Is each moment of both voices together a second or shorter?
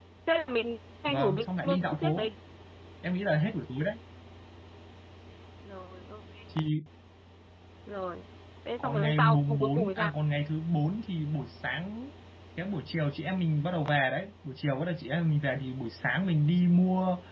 No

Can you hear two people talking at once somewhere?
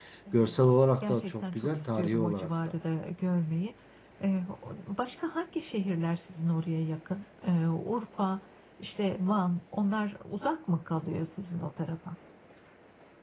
Yes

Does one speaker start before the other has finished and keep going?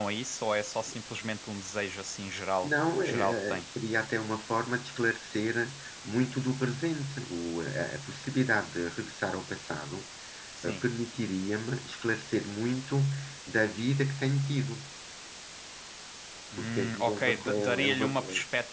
Yes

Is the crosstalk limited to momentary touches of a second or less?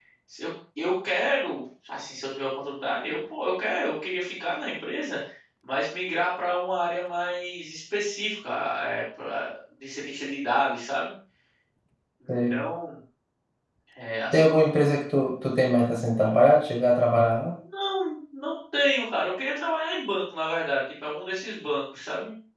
Yes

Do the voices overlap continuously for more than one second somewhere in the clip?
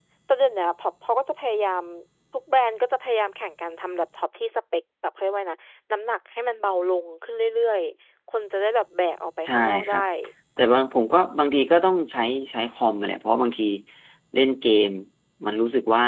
No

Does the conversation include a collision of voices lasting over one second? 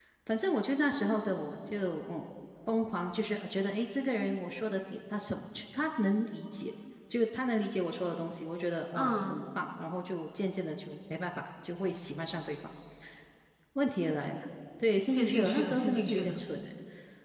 Yes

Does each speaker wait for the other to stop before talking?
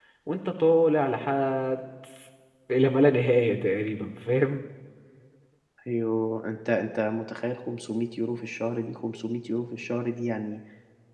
Yes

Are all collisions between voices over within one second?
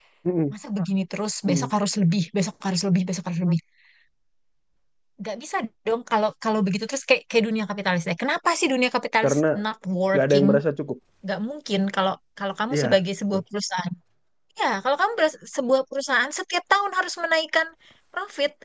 Yes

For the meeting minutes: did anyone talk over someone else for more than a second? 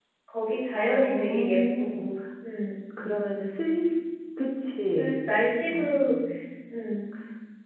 Yes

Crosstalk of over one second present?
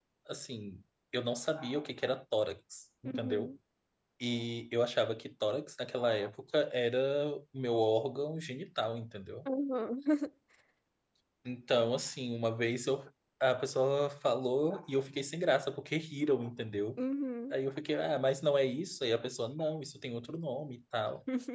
No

